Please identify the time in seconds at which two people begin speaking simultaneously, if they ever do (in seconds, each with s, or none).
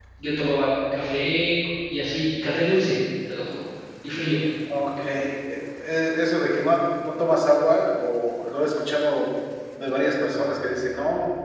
none